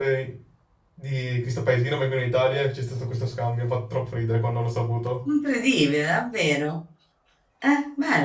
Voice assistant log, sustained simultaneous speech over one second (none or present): none